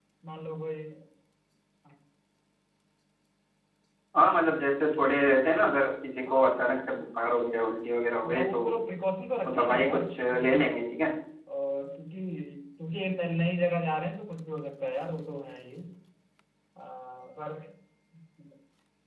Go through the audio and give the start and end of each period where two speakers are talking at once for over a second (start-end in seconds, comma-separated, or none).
9.4-10.8